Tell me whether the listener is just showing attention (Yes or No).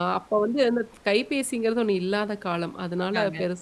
Yes